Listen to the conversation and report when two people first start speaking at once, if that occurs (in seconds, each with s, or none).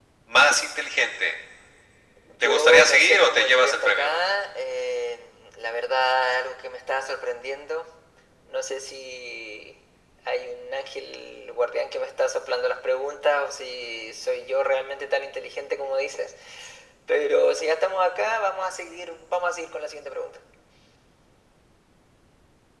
2.4 s